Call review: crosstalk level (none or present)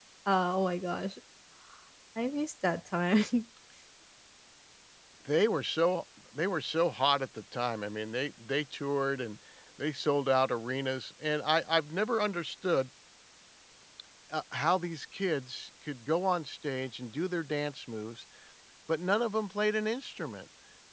none